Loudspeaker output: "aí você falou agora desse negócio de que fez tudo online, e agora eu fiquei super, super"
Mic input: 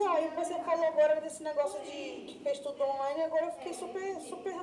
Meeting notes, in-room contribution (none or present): present